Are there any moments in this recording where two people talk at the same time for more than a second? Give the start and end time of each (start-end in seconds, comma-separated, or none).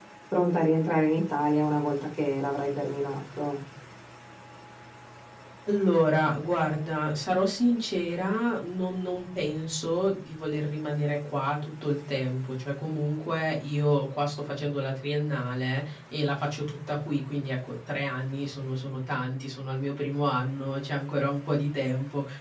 none